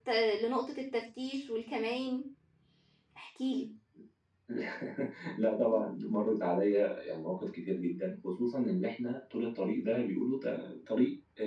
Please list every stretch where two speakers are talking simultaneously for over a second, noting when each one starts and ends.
none

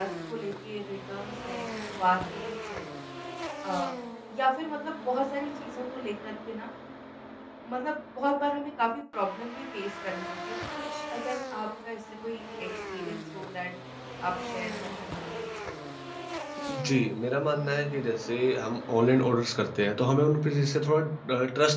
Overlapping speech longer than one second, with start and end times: none

